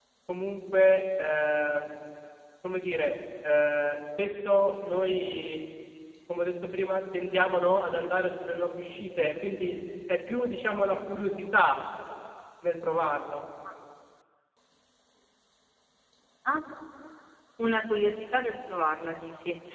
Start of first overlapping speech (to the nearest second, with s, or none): none